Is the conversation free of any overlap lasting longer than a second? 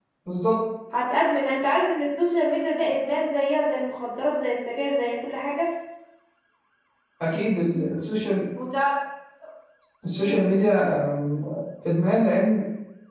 Yes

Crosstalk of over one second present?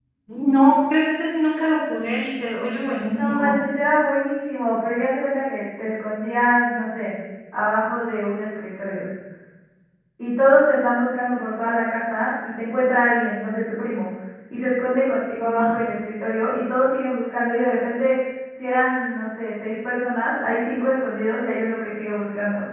No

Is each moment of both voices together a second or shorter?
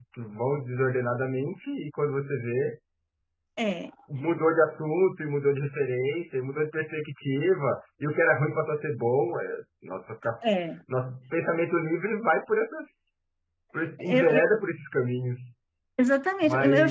Yes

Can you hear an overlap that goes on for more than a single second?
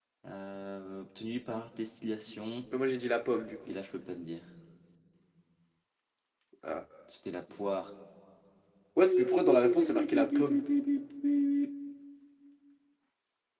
Yes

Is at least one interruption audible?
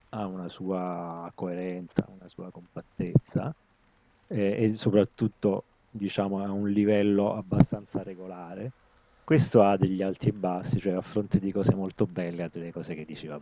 No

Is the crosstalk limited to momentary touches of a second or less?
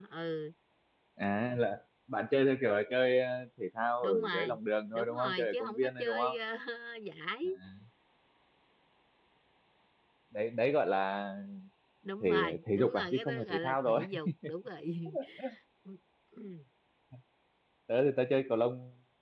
No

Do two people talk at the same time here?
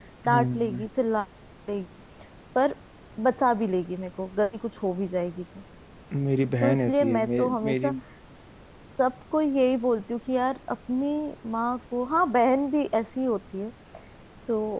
Yes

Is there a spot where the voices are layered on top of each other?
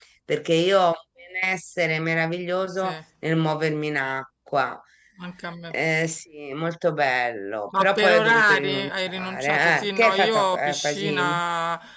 Yes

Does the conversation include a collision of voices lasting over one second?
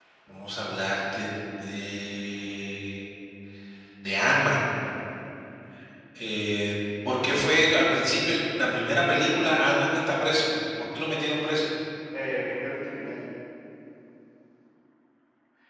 No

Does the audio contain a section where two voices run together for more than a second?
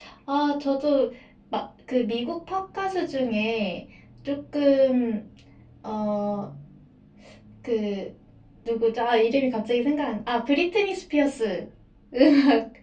No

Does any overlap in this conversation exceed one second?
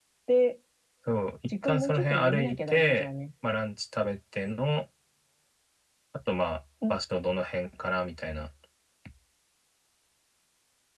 Yes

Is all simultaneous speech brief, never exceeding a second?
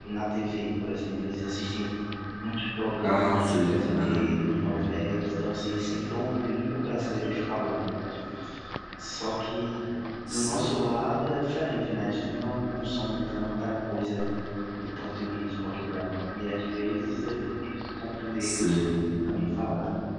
No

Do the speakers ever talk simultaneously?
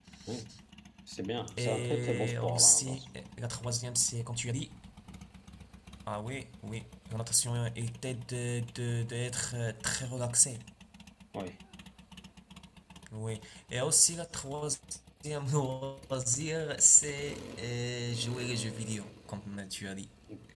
Yes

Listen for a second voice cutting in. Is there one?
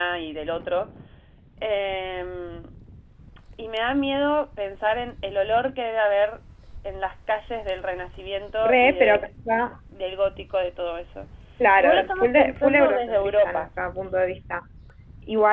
Yes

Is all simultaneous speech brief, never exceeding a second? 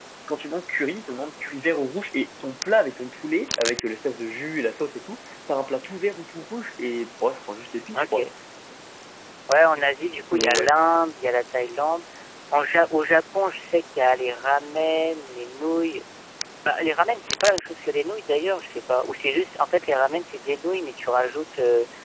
Yes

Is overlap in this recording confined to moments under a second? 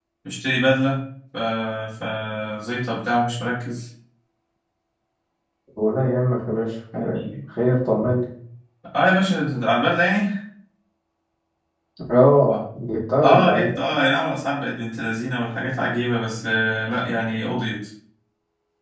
Yes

